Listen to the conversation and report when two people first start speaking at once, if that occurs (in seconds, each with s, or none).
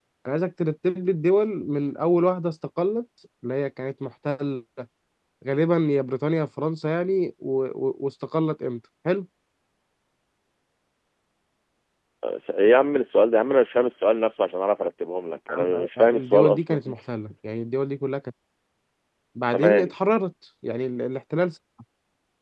15.5 s